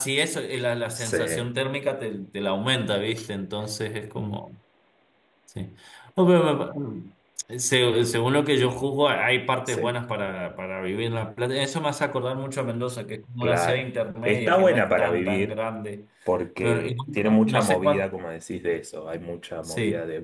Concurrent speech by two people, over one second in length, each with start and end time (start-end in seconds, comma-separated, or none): 14.2-15.6, 16.6-18.0